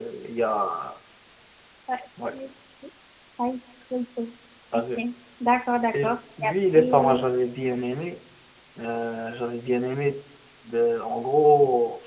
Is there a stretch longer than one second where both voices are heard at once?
Yes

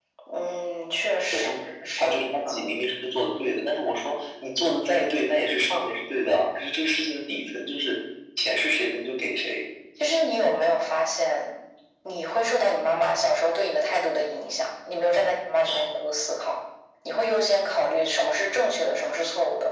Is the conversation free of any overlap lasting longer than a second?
Yes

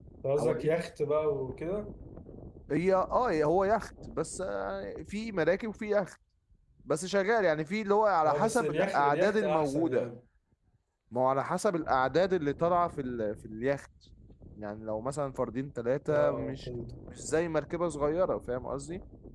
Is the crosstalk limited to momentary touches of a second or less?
No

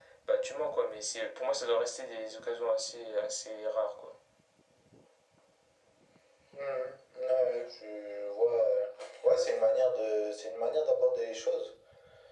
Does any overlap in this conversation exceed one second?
No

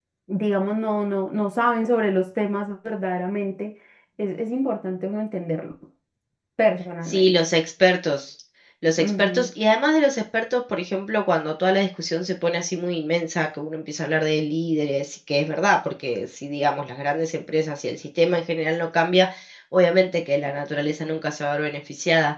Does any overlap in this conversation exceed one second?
No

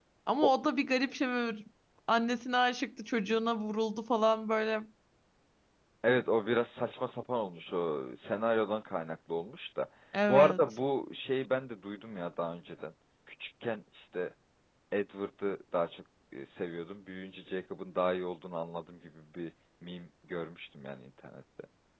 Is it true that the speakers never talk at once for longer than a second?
Yes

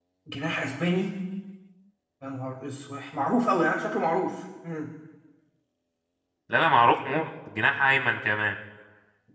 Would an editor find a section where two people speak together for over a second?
No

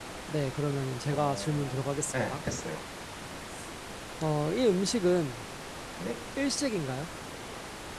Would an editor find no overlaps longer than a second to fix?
No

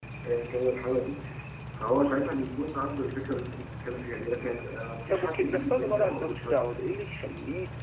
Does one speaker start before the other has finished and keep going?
Yes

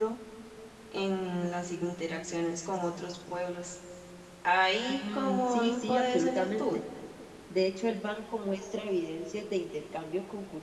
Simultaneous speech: Yes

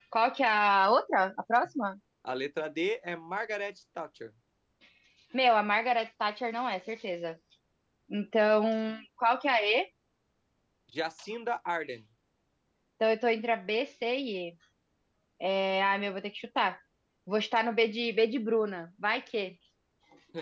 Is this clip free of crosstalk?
Yes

